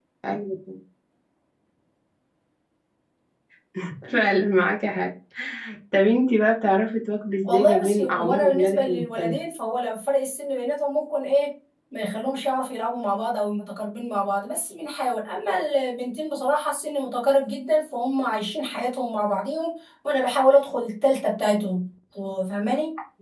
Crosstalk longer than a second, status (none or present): present